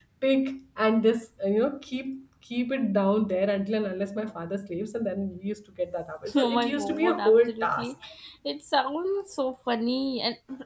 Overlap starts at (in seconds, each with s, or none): 6.3 s